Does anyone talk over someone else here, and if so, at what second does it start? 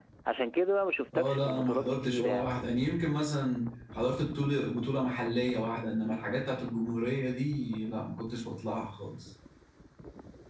1 s

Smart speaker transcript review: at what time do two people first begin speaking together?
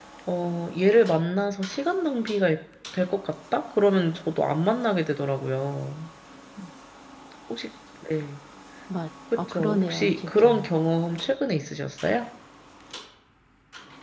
9 s

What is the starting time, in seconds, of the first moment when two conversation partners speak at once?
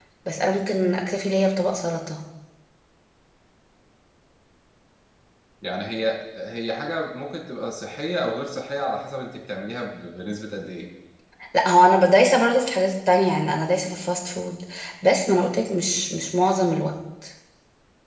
none

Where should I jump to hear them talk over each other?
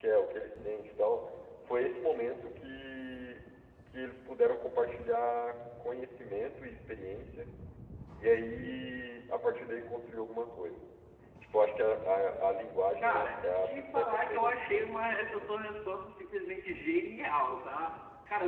13 s

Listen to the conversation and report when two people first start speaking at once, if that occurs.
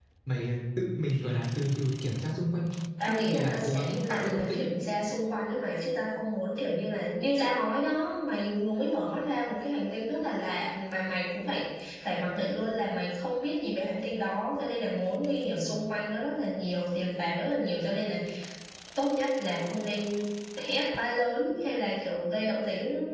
3 s

